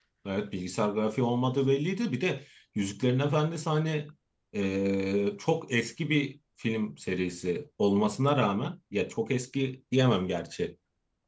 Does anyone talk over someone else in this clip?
No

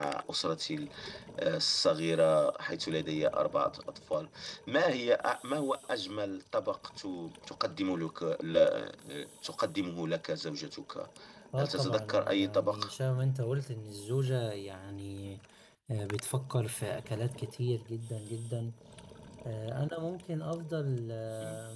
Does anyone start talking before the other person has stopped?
Yes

